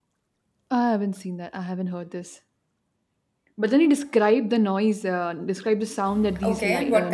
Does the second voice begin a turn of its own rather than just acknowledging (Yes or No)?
Yes